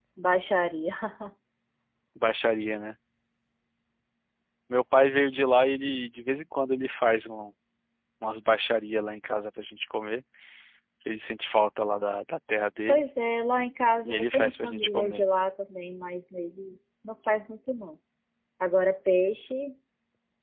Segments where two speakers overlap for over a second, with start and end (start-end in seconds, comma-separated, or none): 14.0-15.2